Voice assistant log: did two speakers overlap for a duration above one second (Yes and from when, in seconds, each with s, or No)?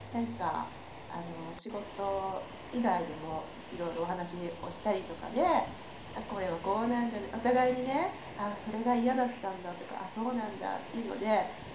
No